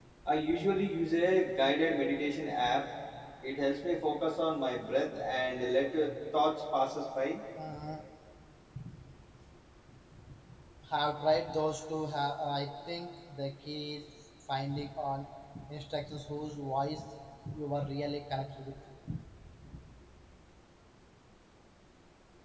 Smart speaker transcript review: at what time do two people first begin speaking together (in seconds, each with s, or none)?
none